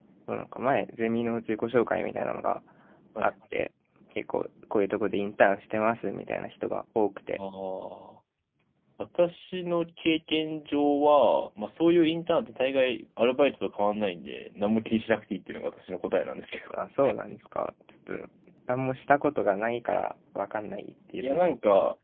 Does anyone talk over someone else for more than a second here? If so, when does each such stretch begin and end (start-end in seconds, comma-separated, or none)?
none